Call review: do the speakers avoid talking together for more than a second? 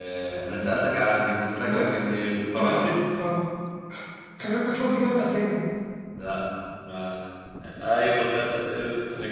Yes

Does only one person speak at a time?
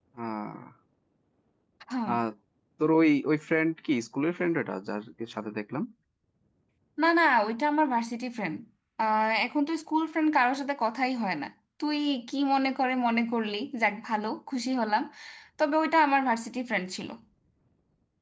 Yes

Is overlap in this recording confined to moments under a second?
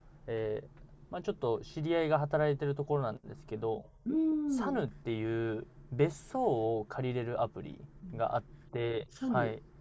Yes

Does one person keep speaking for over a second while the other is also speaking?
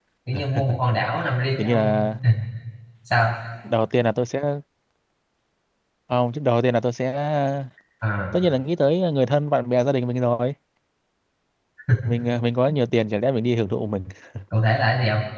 No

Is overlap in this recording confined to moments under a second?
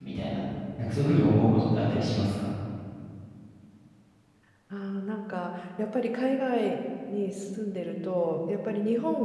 Yes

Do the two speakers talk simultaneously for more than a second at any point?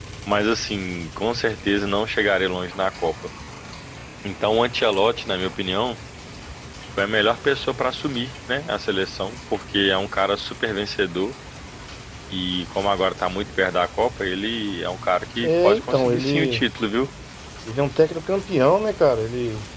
Yes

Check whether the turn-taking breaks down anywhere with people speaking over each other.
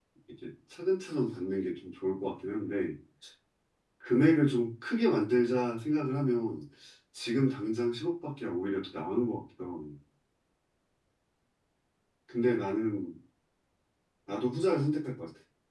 No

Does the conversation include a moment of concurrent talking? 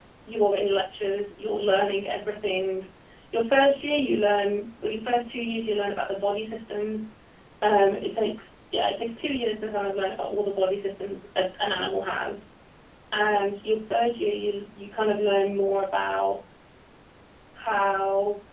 No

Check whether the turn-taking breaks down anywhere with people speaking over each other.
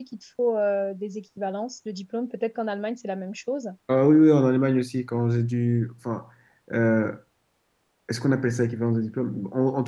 No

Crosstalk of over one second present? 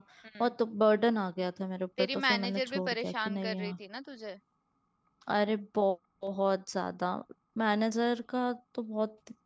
Yes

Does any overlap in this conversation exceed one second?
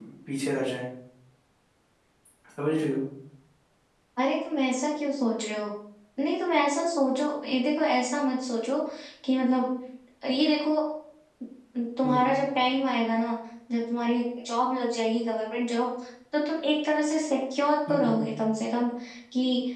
No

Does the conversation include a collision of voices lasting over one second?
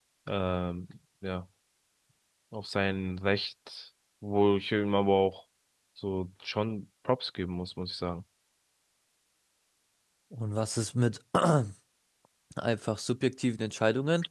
No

